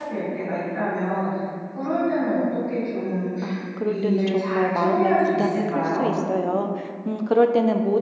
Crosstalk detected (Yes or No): Yes